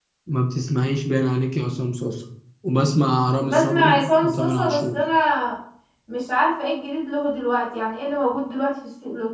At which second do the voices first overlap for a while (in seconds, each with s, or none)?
3.4 s